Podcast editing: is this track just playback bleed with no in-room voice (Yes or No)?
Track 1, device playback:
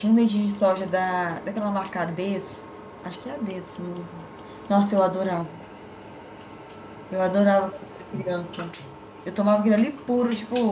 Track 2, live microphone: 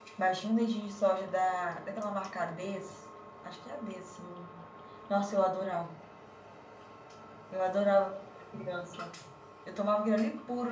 Yes